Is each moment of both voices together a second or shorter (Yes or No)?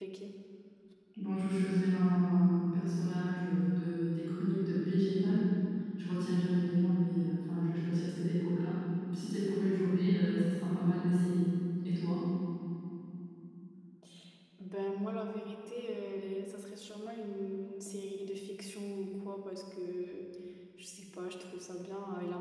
Yes